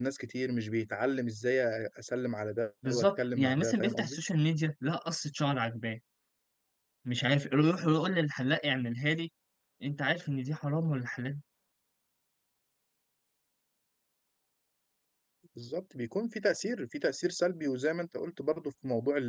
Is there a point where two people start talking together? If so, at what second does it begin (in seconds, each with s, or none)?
2.8 s